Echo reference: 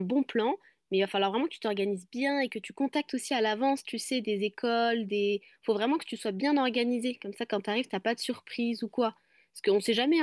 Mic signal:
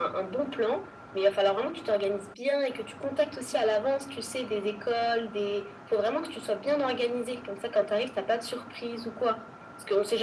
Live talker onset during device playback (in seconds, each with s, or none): none